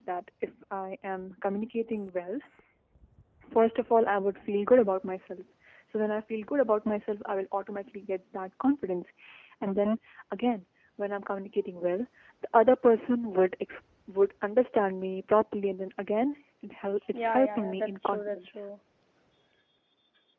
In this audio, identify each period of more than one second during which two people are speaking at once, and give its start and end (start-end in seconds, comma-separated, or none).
17.1-18.5